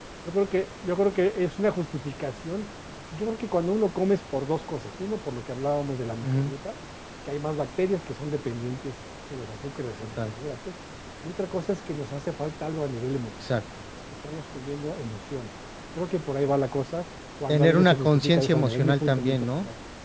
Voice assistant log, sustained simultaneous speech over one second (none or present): present